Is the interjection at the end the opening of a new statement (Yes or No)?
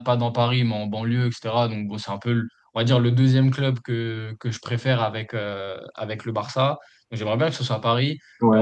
No